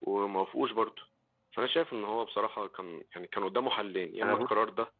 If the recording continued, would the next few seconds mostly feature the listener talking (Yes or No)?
No